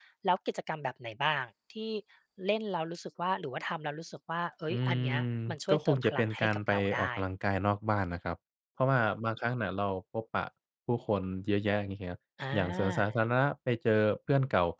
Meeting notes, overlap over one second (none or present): present